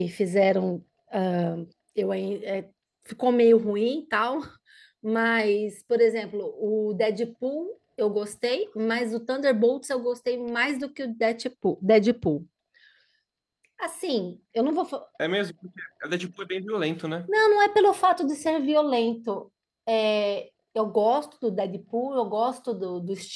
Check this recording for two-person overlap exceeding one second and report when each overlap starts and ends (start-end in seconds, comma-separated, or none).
none